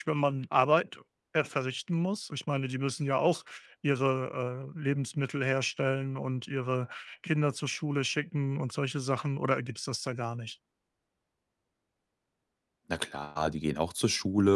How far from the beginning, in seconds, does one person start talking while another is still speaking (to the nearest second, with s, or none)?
none